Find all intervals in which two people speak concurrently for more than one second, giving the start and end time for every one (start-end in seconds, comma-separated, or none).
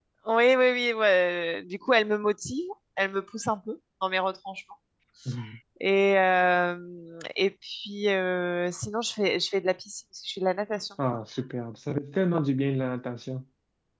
none